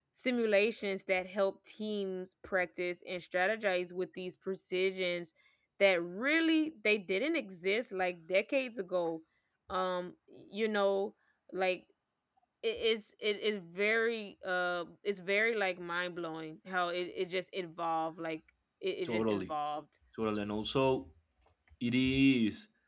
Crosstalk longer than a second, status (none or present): none